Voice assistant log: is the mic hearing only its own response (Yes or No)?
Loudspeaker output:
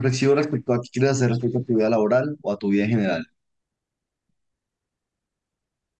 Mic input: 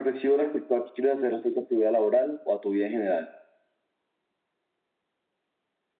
Yes